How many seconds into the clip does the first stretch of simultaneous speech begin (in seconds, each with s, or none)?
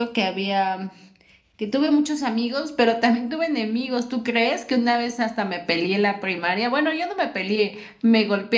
none